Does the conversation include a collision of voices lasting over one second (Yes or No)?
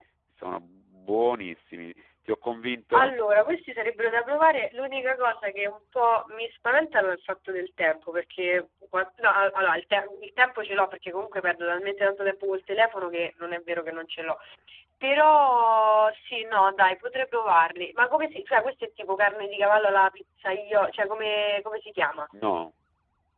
No